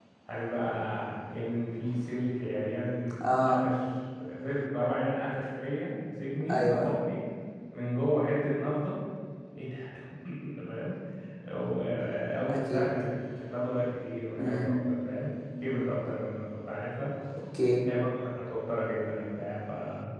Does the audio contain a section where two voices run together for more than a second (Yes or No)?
No